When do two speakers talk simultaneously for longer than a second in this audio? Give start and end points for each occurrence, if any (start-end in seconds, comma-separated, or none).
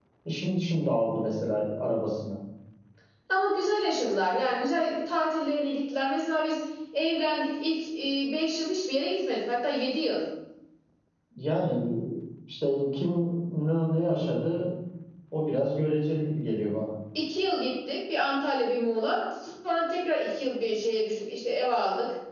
none